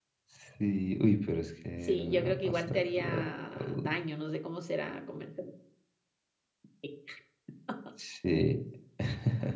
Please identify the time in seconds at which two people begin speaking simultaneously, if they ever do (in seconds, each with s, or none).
1.8 s